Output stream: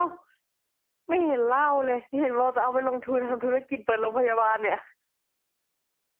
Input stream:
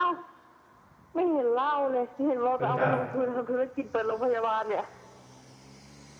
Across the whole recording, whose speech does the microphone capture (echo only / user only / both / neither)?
both